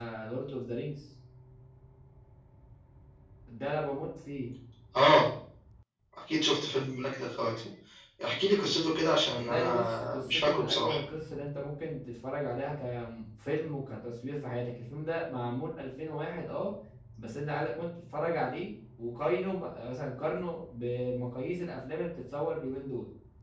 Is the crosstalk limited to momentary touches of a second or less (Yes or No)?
No